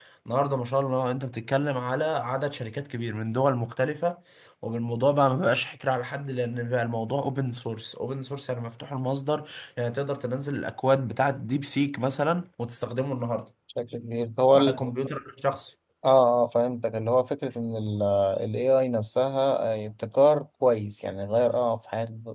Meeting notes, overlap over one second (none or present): none